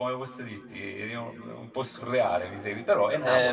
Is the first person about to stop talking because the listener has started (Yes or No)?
Yes